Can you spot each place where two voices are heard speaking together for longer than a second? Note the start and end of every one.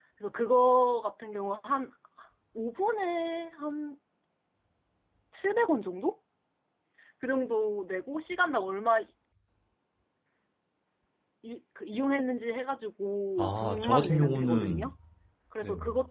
13.4-14.9

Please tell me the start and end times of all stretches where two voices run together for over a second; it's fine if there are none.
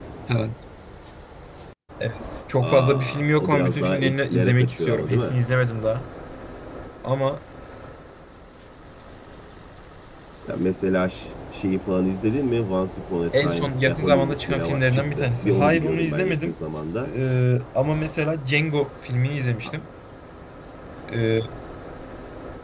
2.6-5.4, 13.4-16.5

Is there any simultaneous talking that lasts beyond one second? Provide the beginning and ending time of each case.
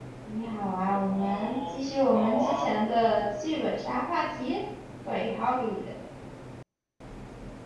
0.7-2.7

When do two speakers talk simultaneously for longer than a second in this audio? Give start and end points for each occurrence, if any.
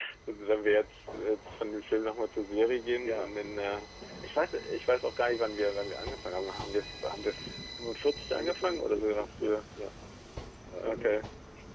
8.3-9.5

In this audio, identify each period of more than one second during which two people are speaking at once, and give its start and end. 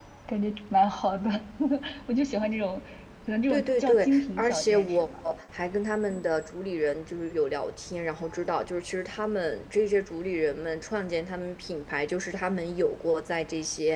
3.5-5.1

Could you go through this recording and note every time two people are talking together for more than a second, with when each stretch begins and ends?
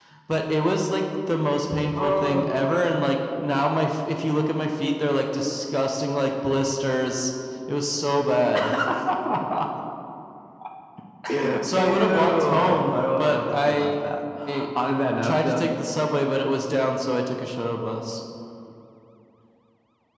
11.6-13.9

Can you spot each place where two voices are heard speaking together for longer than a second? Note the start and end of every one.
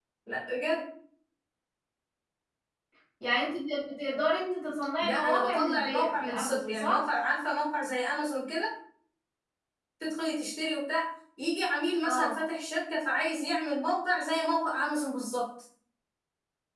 5.0-7.1

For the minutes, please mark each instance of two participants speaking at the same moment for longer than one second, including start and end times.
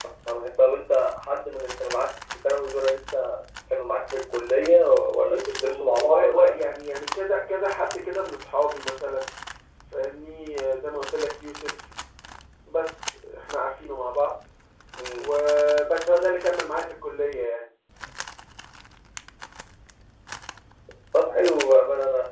5.2-6.5

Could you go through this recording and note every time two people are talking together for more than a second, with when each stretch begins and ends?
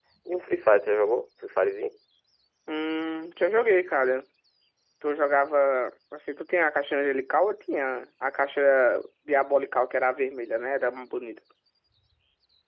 none

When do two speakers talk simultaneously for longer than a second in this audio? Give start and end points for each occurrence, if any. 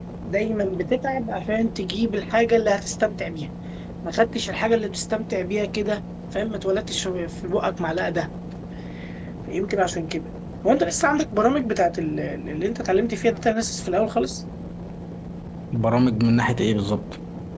none

